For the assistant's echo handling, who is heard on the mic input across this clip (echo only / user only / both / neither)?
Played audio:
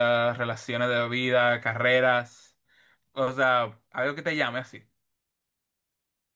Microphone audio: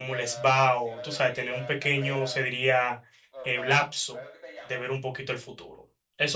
both